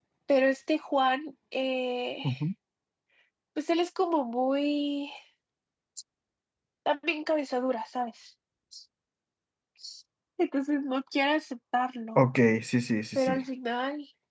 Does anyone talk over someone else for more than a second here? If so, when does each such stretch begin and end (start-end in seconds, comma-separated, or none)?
none